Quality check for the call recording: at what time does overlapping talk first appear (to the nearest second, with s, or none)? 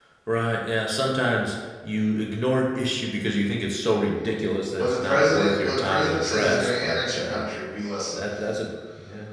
5 s